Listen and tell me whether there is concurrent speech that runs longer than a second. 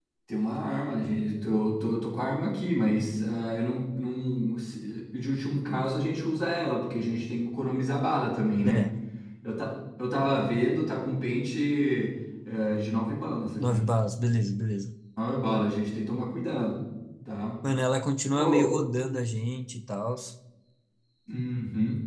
No

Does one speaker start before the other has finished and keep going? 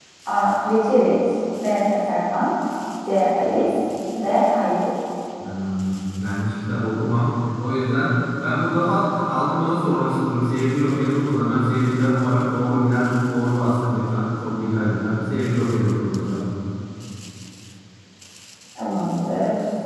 No

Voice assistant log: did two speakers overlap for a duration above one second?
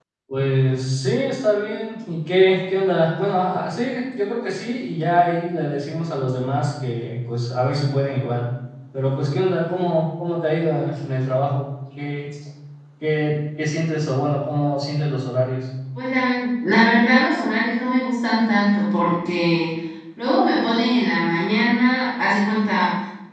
No

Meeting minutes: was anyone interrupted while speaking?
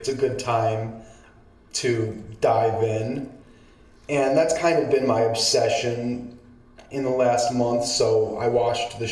No

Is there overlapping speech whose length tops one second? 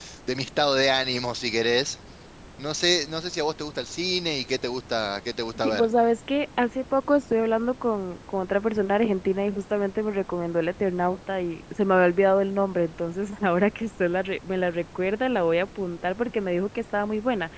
No

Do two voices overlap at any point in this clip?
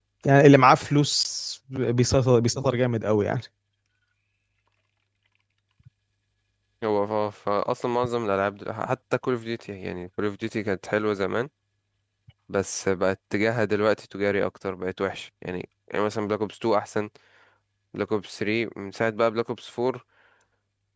No

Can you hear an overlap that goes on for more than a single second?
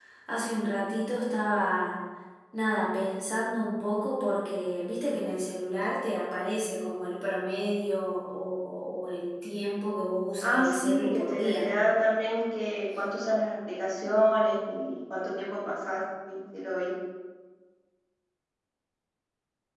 Yes, from 10.4 s

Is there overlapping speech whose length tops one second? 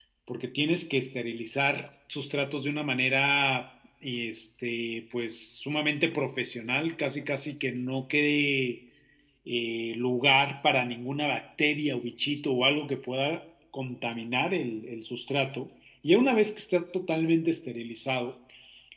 No

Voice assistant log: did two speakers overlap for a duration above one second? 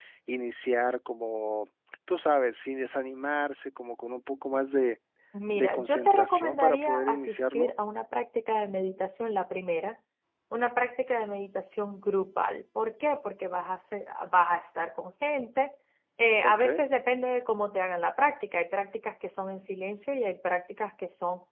Yes, from 5.6 s

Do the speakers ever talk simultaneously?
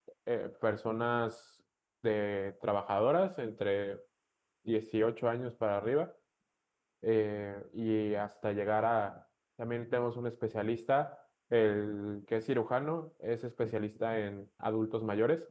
No

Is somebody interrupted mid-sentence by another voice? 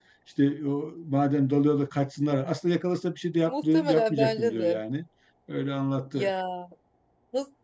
Yes, from 3.5 s

